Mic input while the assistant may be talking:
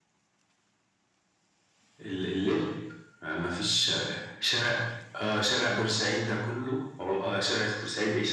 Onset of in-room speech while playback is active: none

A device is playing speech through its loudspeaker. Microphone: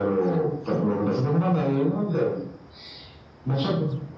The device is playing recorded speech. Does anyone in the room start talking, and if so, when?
none

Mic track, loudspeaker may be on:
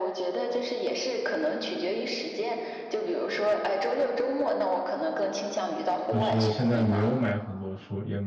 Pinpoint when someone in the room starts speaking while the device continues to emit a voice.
6.1 s

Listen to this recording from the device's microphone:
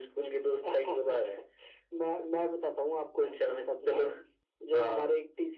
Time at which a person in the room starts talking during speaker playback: none

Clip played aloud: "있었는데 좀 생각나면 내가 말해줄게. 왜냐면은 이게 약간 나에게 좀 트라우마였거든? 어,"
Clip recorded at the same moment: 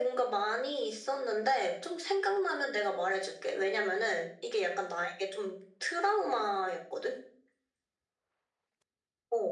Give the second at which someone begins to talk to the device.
none

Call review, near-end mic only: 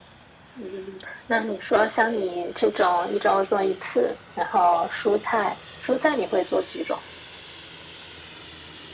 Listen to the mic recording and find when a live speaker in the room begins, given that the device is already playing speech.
none

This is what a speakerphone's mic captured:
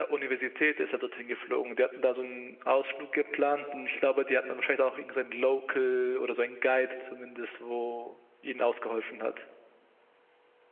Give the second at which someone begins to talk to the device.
none

